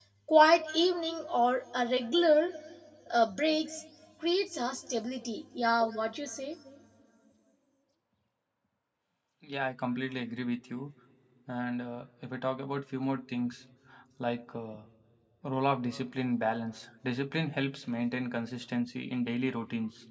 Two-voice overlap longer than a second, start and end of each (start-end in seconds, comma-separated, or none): none